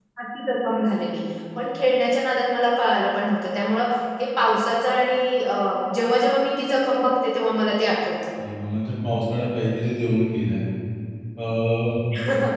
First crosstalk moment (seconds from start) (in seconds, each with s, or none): none